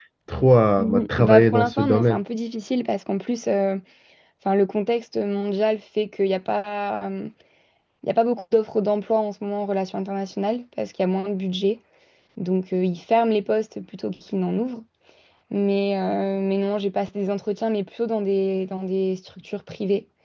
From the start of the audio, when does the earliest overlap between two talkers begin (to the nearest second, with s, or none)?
1 s